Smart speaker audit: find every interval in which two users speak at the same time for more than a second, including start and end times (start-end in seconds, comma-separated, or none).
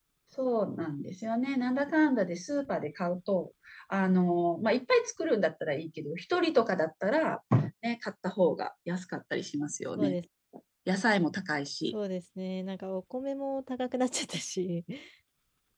none